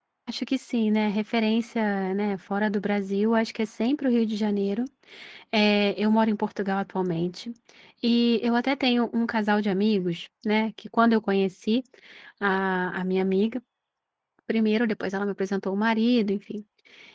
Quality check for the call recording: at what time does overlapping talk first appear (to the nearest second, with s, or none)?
none